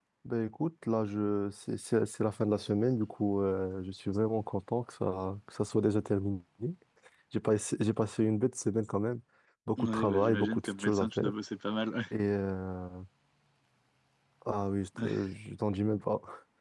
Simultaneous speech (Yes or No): Yes